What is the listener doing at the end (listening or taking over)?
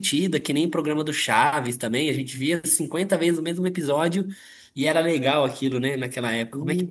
taking over